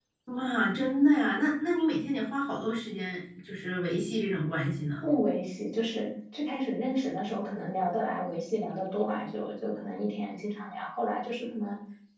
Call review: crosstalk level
none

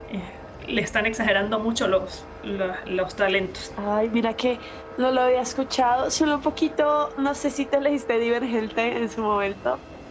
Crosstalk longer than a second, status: none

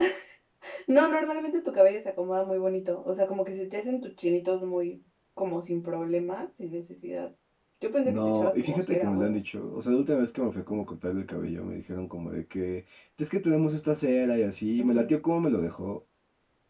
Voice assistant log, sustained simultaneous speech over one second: present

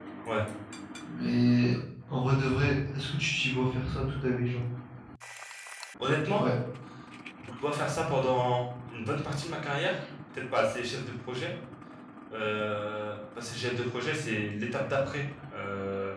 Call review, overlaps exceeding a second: none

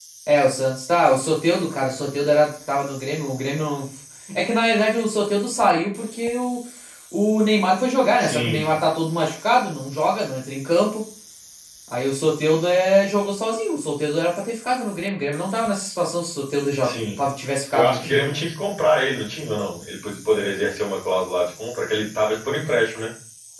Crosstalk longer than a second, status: none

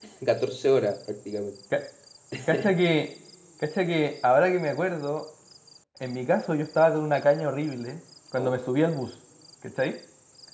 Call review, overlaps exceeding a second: none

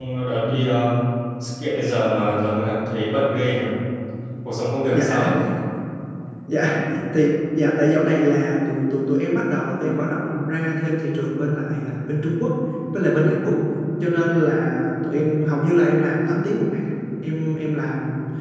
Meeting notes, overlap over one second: none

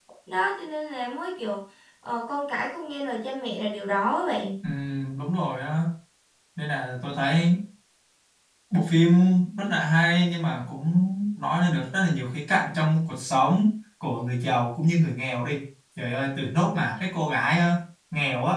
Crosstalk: none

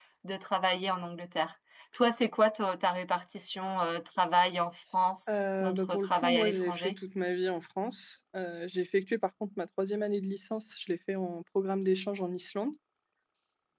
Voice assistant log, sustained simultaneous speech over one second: present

